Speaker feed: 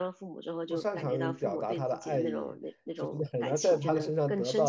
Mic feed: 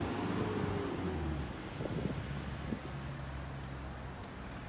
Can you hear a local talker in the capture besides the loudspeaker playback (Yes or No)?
No